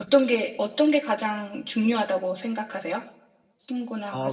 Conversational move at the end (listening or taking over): taking over